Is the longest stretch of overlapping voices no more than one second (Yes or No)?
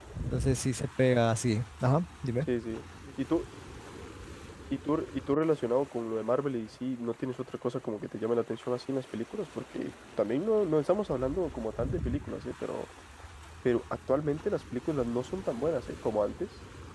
Yes